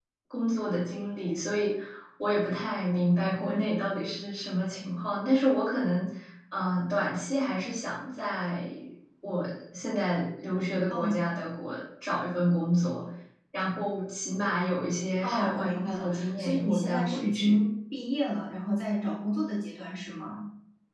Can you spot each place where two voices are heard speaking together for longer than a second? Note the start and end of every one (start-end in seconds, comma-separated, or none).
15.2-17.6